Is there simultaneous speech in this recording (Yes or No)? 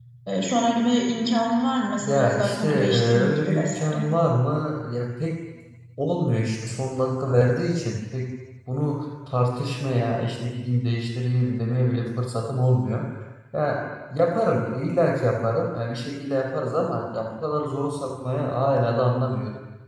Yes